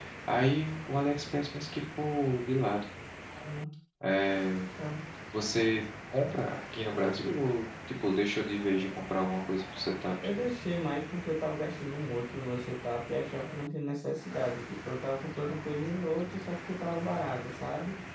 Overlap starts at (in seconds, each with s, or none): none